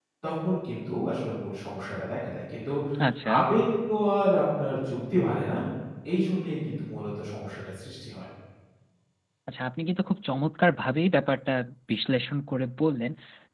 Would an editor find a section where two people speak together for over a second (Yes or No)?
No